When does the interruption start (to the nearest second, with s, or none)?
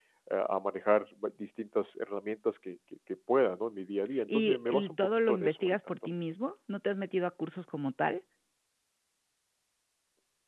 4 s